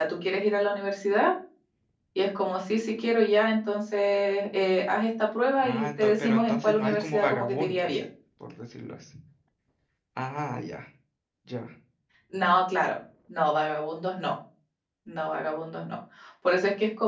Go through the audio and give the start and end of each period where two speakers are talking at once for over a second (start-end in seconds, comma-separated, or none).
5.6-8.0